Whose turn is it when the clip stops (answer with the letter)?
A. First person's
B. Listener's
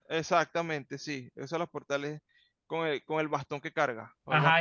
B